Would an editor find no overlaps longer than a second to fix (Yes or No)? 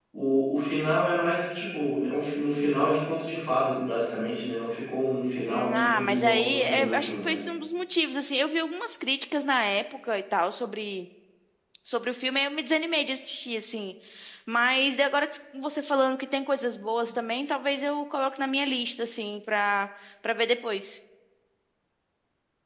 No